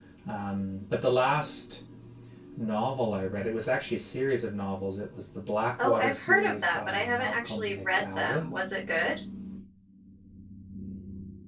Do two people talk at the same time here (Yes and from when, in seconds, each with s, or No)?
Yes, from 5.8 s